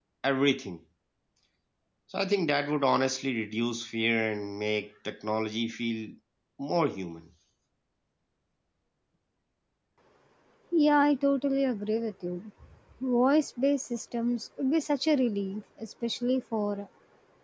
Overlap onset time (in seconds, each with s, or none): none